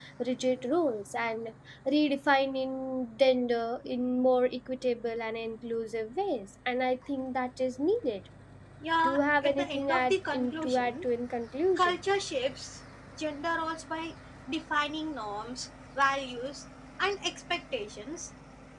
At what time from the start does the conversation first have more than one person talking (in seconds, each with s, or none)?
9.0 s